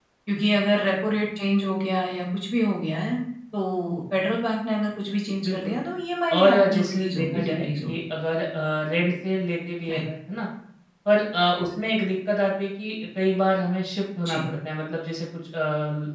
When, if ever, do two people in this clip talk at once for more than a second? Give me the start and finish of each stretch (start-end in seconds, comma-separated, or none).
6.4-8.0